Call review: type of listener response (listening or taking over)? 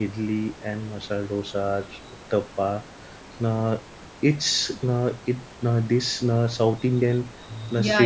taking over